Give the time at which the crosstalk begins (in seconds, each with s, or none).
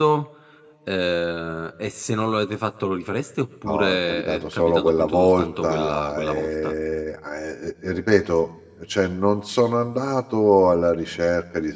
3.6 s